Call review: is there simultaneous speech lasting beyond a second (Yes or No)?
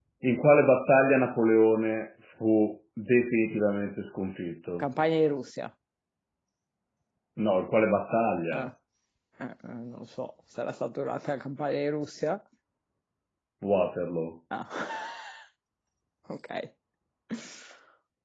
No